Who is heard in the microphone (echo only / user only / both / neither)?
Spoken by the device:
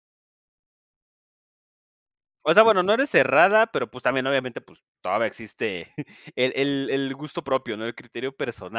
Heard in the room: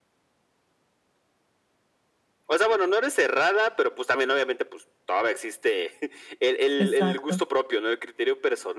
both